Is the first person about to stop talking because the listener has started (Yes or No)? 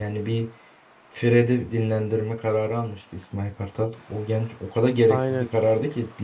No